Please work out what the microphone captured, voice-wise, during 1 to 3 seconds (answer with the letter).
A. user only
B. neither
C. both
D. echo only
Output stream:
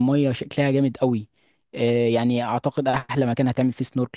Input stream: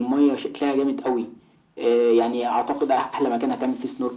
D